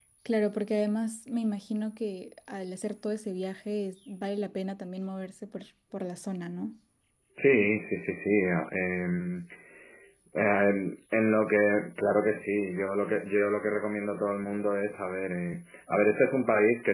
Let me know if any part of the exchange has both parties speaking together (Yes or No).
No